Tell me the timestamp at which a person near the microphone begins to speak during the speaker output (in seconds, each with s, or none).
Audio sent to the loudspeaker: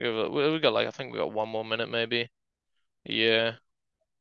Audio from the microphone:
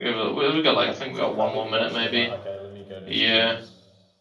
0.8 s